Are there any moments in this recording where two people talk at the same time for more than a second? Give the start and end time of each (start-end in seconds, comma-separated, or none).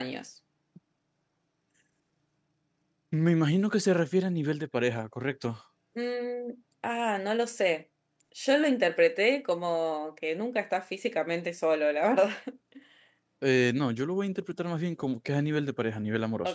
none